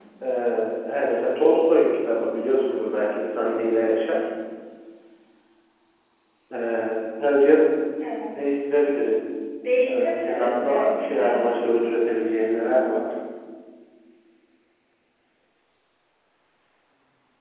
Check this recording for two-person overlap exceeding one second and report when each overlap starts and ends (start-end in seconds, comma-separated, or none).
9.8-11.6